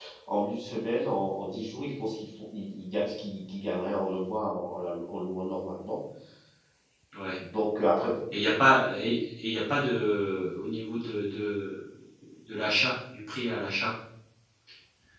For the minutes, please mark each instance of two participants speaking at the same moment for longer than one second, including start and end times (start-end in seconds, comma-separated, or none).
none